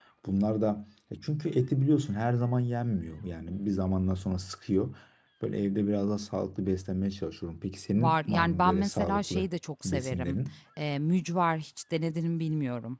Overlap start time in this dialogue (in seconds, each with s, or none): 8.0 s